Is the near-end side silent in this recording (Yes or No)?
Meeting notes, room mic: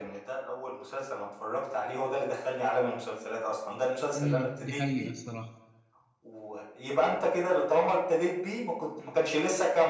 No